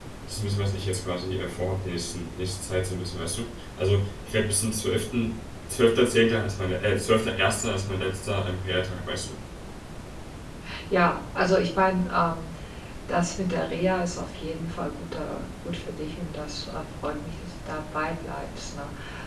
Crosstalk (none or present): none